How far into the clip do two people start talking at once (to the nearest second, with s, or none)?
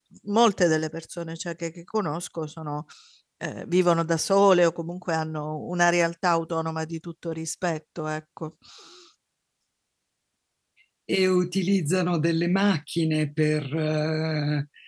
none